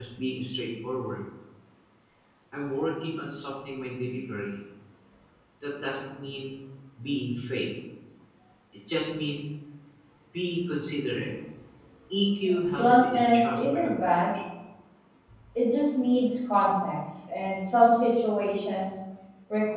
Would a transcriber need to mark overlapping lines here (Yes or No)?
Yes